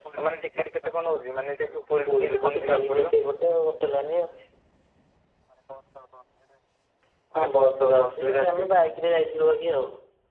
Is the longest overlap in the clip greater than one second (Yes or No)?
Yes